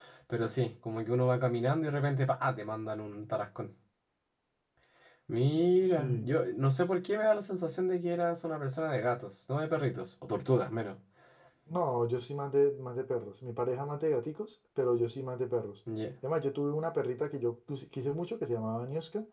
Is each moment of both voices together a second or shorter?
Yes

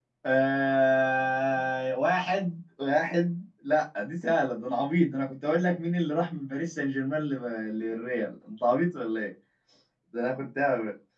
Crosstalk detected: No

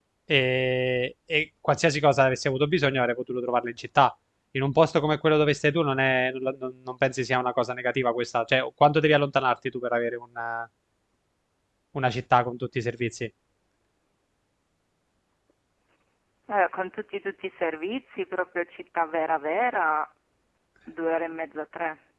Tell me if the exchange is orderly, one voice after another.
Yes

